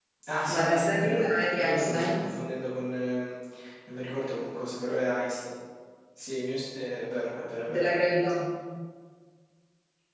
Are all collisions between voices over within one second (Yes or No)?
No